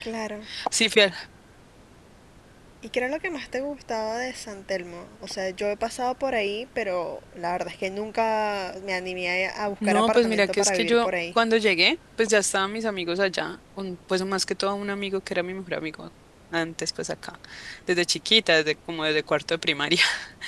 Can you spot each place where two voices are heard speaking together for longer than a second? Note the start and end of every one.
9.8-11.1

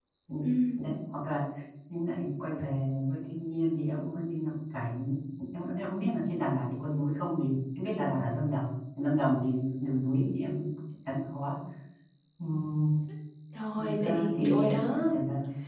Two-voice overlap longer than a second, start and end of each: 13.8-15.1

